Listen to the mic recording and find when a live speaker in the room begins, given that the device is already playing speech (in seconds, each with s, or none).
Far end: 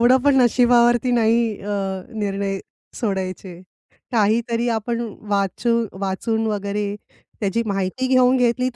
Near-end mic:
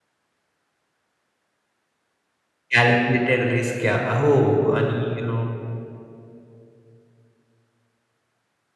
2.7 s